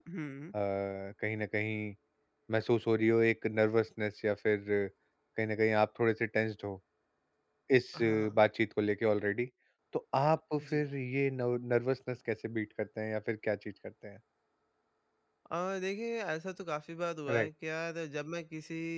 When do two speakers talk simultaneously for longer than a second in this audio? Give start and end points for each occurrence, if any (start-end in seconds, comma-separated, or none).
none